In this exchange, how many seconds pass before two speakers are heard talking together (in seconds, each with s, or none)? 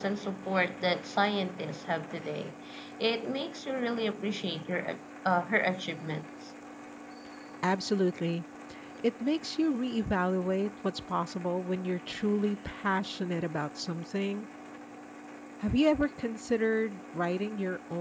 none